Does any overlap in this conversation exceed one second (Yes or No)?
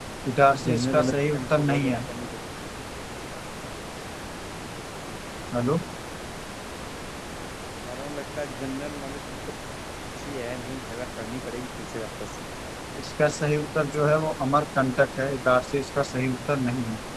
Yes